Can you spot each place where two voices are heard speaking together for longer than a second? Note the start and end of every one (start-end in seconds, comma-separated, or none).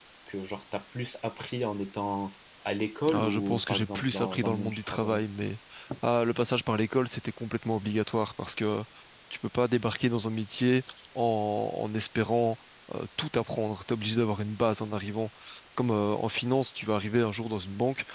3.1-5.2